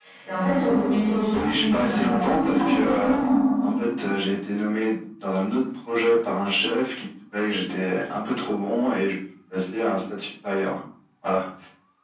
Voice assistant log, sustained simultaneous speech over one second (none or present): present